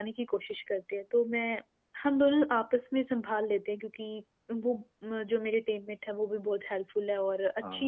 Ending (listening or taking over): listening